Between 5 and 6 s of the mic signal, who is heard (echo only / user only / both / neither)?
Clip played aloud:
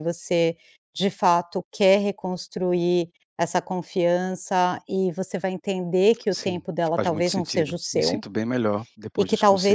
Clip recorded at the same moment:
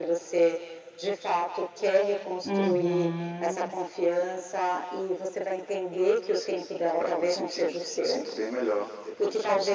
echo only